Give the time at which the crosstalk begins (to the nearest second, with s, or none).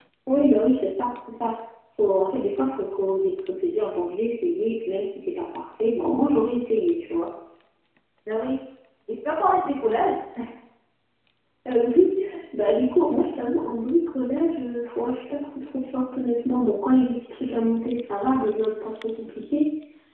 none